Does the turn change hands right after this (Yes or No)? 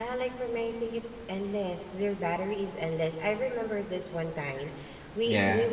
No